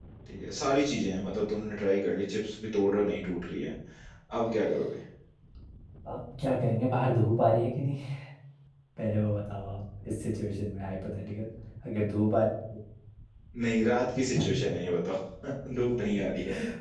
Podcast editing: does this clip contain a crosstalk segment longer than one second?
No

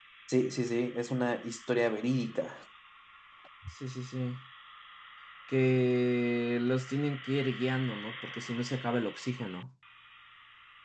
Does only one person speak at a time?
Yes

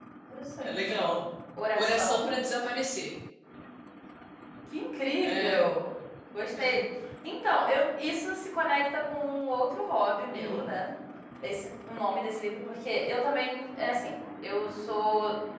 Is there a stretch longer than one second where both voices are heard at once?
No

